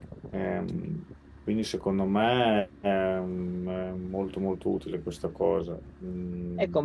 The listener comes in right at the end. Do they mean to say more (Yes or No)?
Yes